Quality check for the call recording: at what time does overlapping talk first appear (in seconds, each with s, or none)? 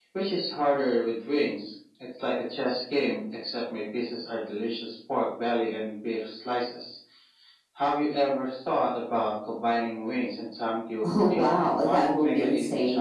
11.0 s